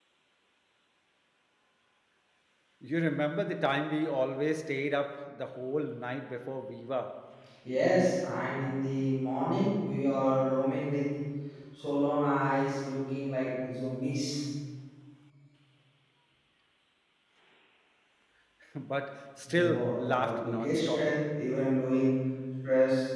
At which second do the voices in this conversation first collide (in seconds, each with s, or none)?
19.5 s